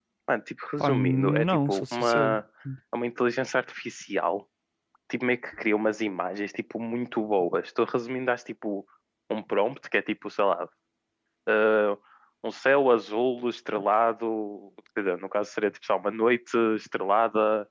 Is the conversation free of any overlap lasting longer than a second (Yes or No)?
No